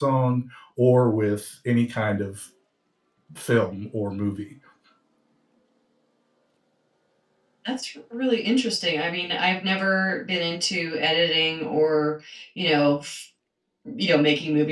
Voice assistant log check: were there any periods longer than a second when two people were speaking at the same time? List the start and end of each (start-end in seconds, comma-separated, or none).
none